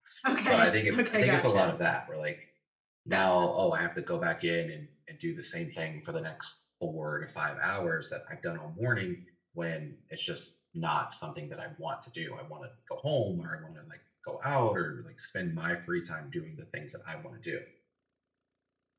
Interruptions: present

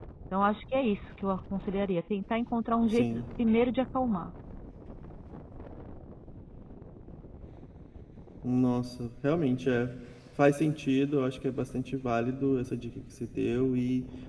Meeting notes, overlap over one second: none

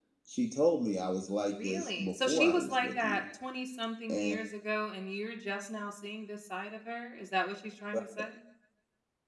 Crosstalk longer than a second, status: present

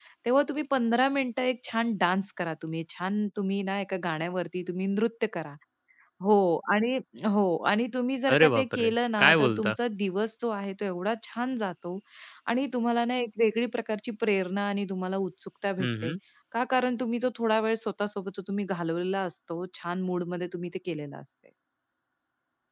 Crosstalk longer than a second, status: present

